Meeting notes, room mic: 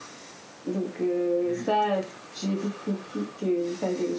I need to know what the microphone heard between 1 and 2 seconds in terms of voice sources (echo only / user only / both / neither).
both